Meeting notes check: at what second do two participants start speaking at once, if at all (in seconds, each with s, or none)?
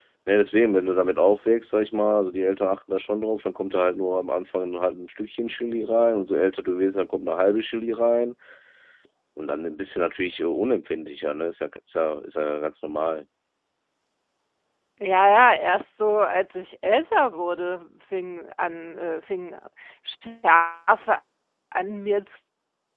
none